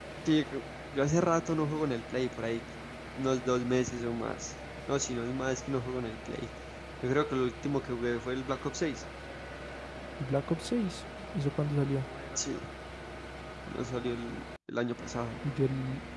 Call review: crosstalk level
none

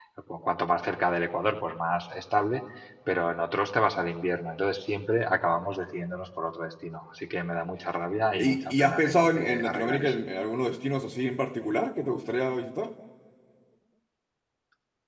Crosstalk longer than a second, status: present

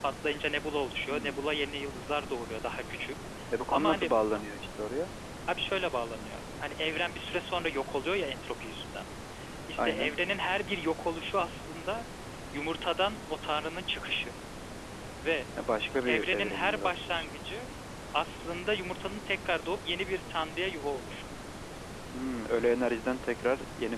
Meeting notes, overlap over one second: present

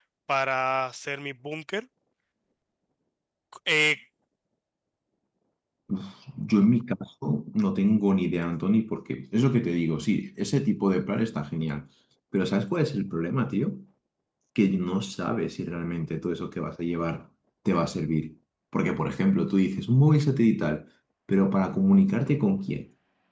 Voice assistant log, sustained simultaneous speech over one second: none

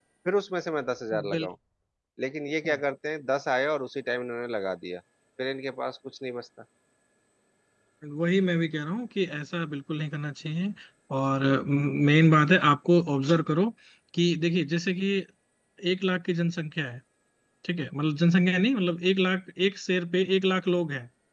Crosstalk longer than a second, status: none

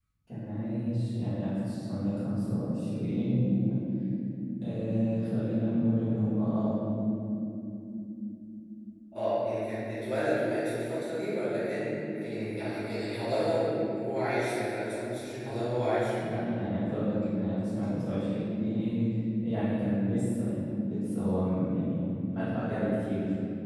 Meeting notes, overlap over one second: none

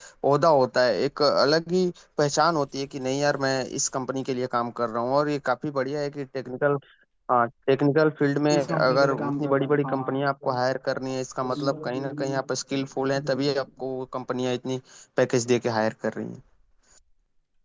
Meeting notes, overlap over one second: present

